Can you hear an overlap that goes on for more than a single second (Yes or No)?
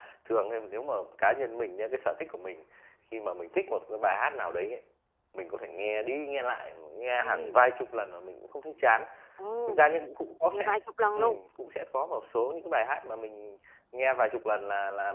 No